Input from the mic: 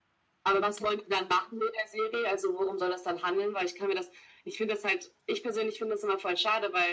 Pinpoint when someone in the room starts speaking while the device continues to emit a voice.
none

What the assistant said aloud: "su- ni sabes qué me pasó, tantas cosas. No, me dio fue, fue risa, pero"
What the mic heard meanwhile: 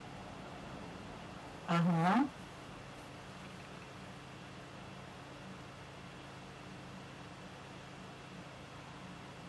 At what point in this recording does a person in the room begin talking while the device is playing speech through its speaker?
1.6 s

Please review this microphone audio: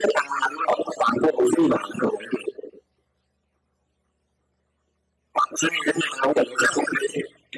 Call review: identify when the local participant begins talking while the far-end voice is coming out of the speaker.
none

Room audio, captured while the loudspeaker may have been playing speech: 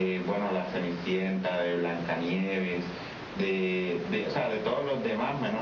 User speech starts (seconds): none

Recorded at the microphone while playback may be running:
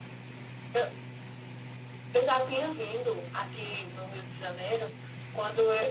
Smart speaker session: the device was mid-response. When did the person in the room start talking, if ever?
none

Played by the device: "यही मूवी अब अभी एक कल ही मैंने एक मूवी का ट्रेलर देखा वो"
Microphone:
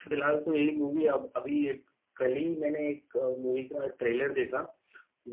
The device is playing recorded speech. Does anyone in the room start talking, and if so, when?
none

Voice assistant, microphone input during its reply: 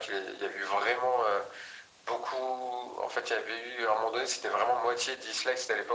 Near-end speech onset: none

